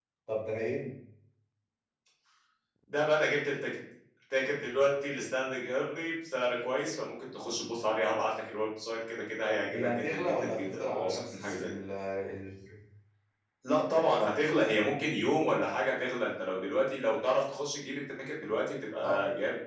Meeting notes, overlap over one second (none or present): present